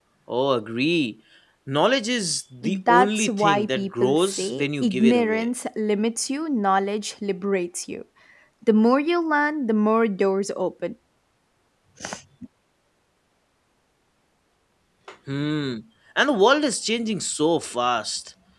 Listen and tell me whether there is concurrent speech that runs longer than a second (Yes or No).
Yes